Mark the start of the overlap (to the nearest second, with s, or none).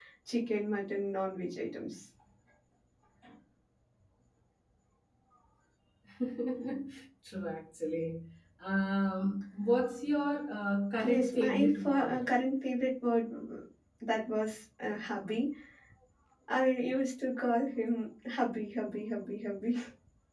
11 s